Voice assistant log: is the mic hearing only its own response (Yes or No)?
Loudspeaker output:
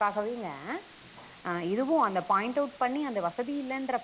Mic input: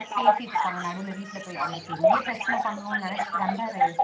No